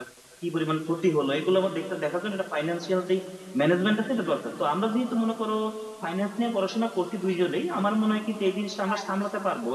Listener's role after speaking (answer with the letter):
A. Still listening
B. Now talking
A